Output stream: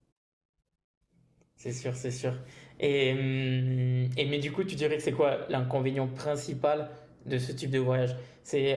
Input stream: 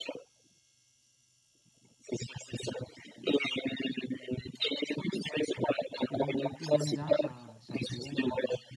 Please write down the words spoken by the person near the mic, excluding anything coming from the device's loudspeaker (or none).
Et donc depuis 2001, ça, ça tourne.